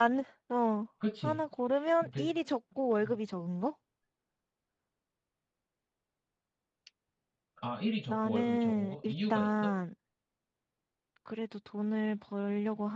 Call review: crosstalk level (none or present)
present